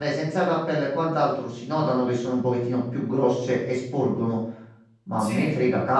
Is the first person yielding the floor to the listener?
No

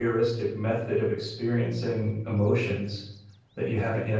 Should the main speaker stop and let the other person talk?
Yes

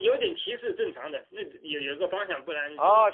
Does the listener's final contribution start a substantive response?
Yes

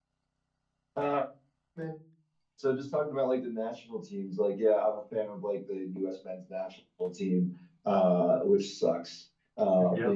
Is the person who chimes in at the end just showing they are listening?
Yes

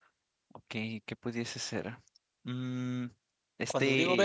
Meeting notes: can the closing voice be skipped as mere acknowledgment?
No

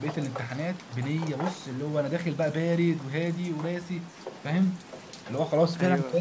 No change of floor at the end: Yes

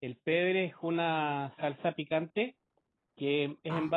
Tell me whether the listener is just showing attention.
Yes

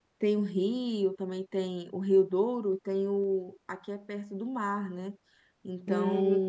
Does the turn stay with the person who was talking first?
Yes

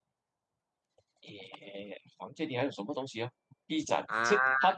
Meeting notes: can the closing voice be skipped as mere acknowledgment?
Yes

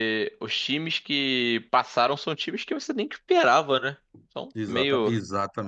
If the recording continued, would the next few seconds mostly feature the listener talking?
Yes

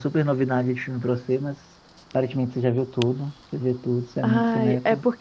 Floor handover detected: Yes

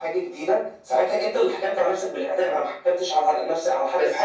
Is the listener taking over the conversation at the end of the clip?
Yes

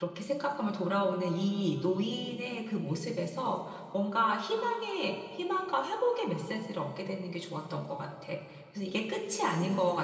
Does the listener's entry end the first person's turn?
No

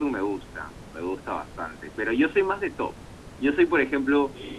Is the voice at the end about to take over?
No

